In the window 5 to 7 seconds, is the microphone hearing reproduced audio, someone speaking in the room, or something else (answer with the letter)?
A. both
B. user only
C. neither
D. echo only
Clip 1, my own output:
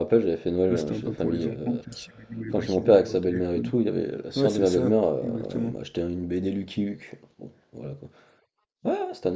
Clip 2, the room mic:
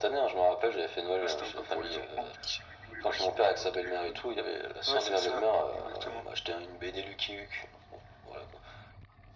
D